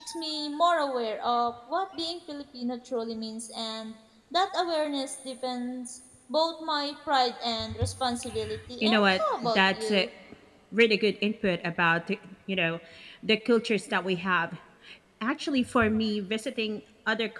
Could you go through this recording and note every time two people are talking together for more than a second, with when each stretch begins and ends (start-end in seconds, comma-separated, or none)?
8.8-10.1